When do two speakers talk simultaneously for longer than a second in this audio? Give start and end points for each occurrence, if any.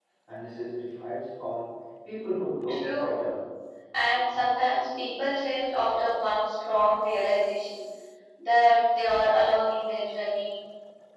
none

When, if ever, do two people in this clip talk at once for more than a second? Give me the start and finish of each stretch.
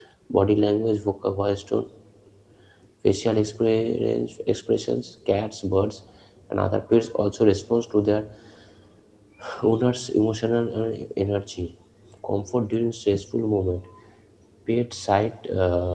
none

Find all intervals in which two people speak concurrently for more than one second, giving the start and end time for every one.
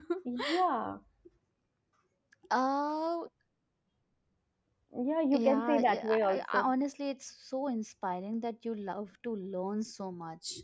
5.3-6.7

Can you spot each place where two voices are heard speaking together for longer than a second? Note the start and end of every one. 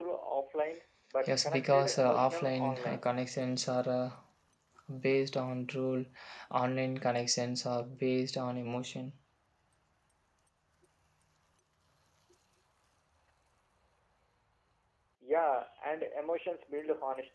1.2-3.1

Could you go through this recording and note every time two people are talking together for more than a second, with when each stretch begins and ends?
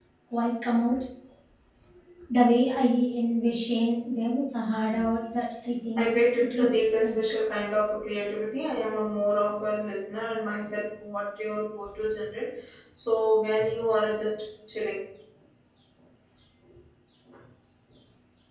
6.0-7.2

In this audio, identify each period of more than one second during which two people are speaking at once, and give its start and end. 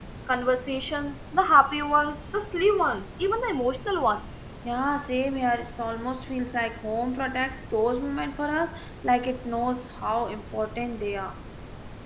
none

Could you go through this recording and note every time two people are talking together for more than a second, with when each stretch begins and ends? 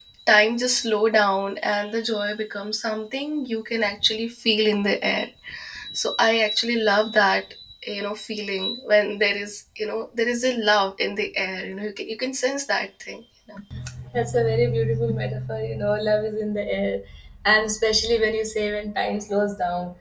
none

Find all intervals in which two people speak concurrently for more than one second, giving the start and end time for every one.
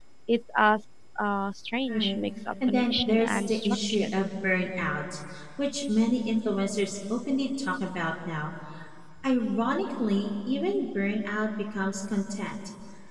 2.7-4.2

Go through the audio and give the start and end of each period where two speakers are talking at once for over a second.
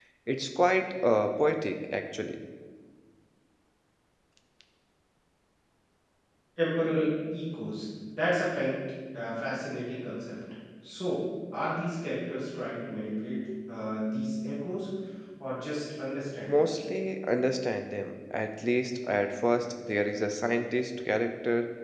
none

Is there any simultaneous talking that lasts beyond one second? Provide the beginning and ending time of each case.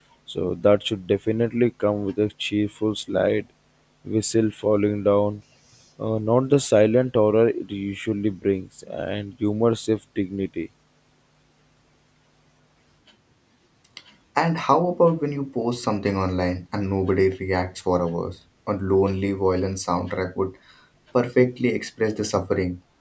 none

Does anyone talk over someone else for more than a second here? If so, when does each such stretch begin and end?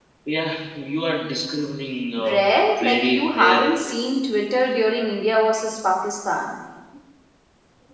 2.2-3.9

